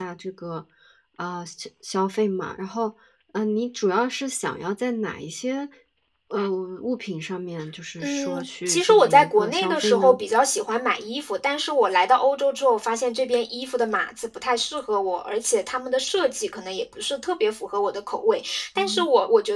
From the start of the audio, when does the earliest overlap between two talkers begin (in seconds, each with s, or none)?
8.0 s